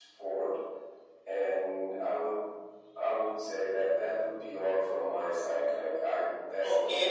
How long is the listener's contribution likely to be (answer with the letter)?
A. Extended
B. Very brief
A